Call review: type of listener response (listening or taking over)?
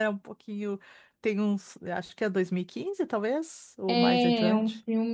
taking over